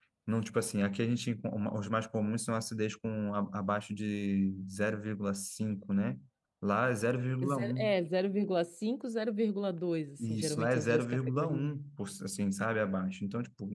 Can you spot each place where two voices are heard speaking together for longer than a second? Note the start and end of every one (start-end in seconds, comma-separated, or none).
10.2-11.7